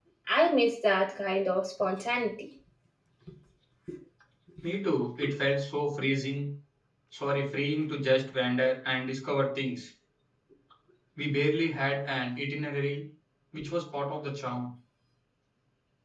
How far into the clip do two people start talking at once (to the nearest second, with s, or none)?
none